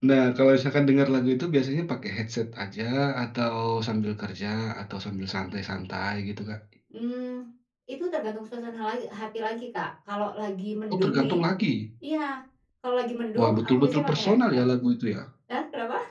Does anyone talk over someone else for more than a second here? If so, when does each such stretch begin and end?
13.4-14.6

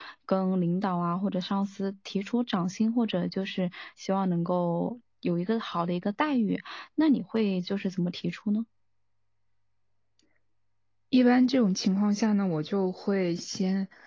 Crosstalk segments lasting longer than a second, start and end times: none

